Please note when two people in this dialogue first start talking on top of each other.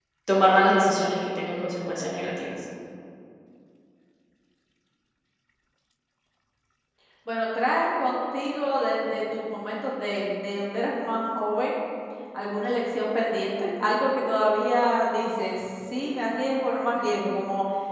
none

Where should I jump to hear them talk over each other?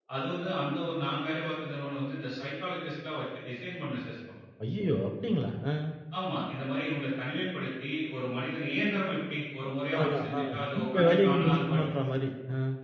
9.9 s

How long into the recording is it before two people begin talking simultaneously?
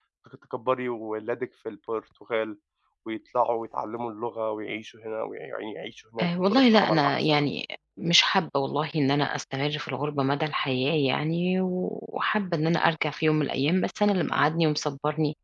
6.2 s

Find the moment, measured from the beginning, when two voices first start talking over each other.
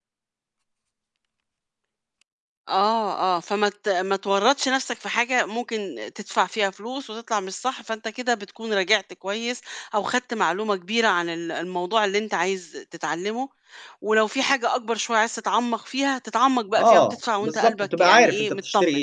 16.8 s

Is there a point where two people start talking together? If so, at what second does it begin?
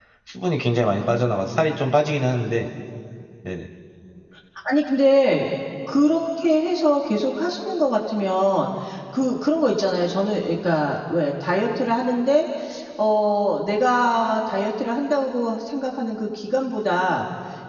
none

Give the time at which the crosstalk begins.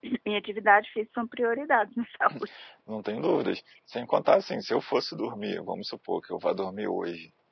none

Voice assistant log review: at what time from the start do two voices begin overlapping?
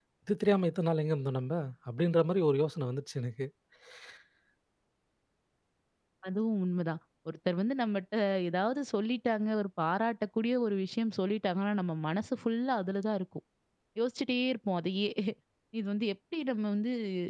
none

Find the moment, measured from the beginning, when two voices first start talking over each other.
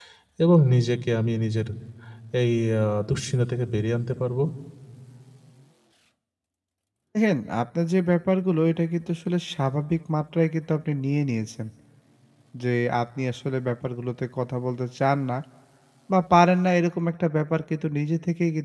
none

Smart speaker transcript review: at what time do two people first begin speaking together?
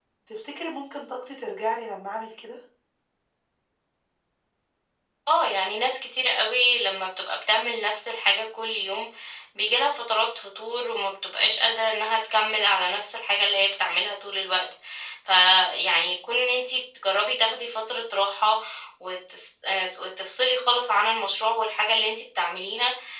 none

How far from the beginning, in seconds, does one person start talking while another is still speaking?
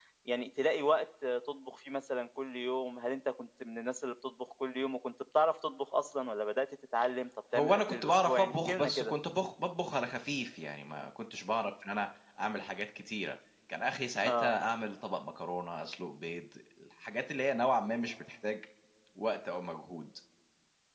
7.5 s

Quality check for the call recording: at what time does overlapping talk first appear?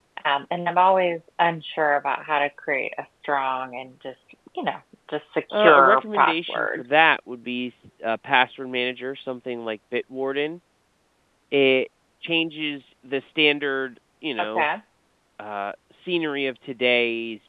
5.5 s

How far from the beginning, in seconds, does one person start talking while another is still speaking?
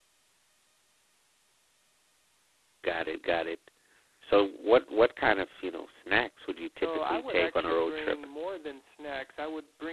6.8 s

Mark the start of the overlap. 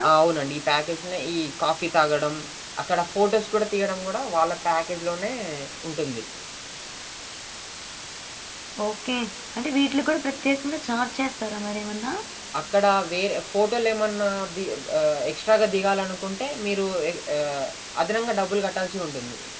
none

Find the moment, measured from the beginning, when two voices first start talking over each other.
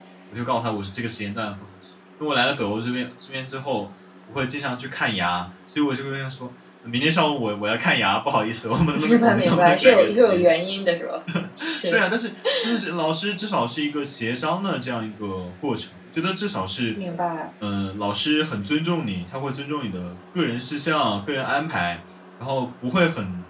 8.9 s

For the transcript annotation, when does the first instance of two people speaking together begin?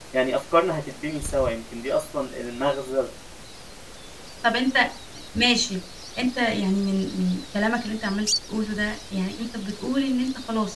none

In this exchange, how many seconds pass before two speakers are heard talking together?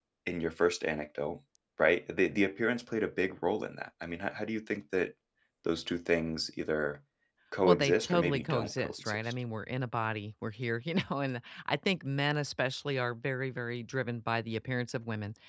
7.7 s

